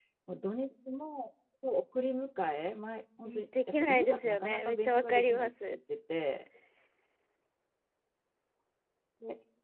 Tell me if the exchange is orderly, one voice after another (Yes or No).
No